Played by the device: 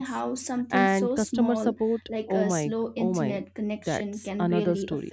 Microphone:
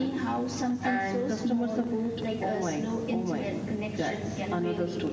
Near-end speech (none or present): none